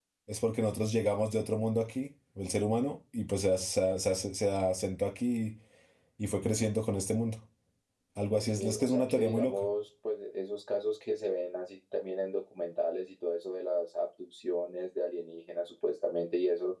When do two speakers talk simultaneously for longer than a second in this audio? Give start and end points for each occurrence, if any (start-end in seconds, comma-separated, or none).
8.3-9.7